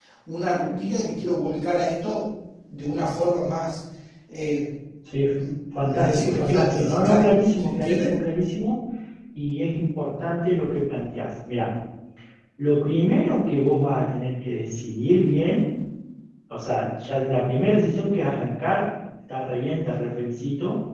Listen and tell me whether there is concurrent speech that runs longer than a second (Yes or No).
Yes